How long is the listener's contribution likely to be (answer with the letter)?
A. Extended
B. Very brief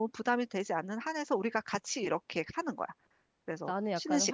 A